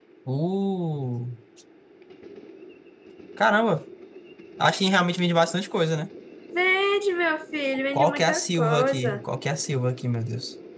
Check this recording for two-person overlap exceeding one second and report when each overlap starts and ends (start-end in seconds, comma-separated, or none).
7.9-9.2